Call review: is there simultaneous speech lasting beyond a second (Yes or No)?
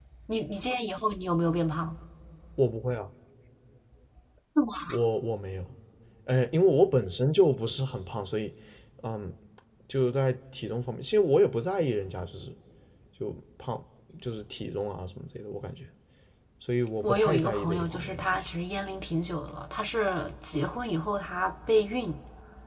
Yes